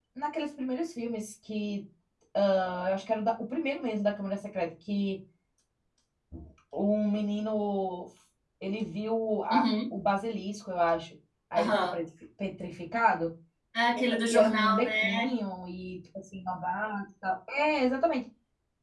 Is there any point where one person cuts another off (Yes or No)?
Yes